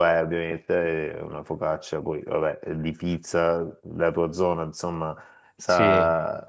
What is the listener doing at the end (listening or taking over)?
listening